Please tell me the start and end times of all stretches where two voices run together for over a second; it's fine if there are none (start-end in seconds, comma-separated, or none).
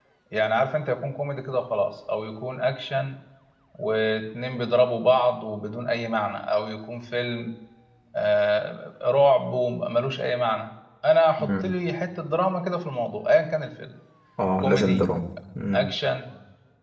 none